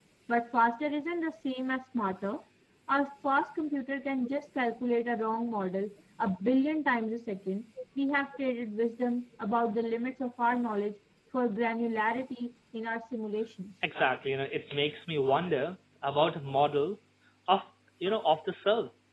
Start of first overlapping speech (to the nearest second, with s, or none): none